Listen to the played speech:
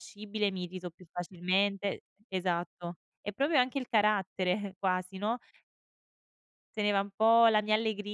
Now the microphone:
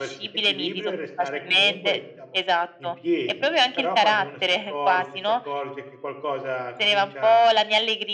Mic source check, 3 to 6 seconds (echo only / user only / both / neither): both